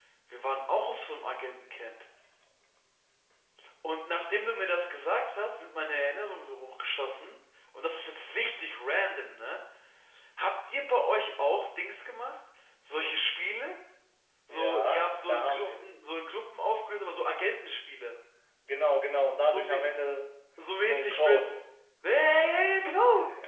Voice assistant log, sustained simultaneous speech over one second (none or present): present